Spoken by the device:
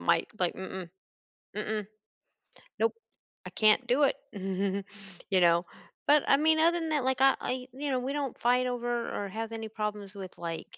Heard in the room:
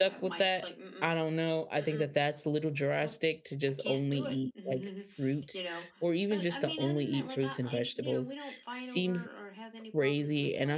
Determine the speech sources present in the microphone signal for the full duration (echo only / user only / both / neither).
both